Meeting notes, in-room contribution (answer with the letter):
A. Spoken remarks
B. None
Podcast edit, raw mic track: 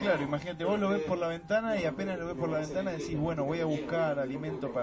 A